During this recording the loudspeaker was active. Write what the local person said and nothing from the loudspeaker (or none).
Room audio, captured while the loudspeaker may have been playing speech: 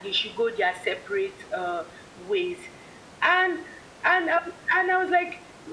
none